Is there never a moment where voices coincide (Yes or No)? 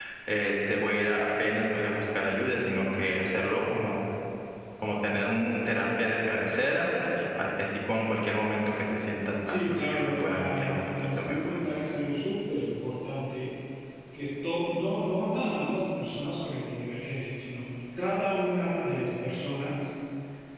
No